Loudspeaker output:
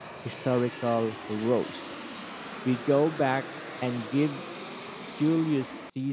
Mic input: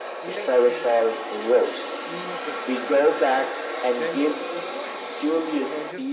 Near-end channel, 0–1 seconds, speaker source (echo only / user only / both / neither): both